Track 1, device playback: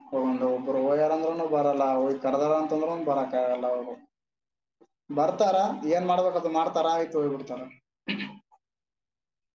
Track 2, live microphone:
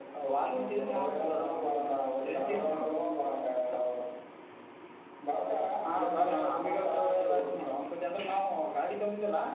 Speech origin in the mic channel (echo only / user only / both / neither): both